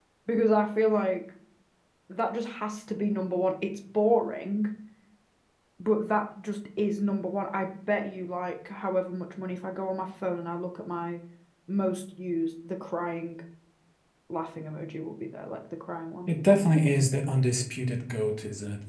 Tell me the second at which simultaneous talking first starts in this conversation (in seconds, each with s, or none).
none